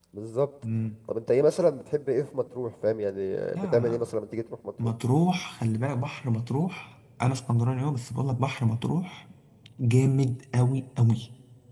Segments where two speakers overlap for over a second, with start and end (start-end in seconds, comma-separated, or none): none